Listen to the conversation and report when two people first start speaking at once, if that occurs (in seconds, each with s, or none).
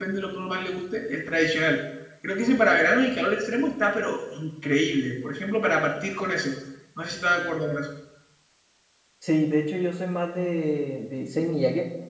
none